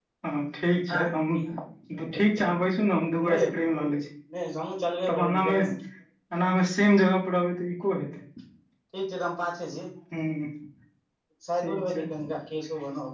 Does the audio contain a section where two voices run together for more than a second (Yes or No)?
No